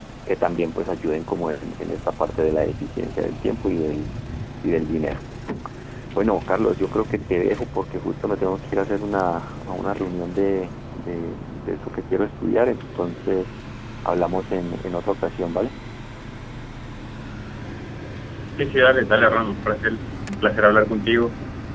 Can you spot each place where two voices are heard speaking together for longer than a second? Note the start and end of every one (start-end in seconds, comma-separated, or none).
none